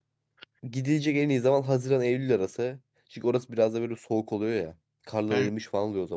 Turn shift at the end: No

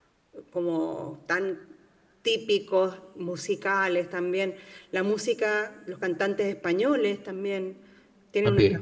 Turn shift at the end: No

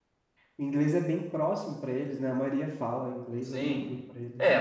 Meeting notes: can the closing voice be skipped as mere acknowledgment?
No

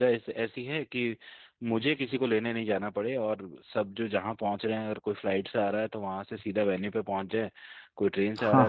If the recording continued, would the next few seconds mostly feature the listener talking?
Yes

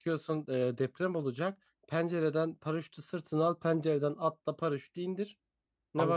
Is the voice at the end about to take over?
Yes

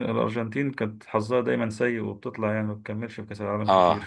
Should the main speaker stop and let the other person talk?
Yes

